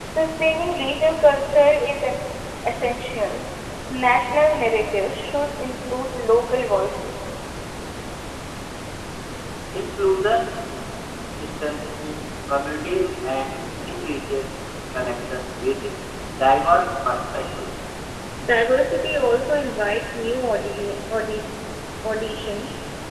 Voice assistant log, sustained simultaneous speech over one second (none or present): none